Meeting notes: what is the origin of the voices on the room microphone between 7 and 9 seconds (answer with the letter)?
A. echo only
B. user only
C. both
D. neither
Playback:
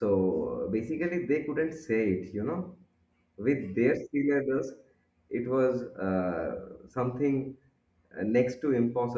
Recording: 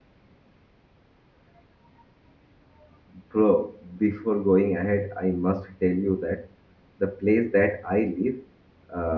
B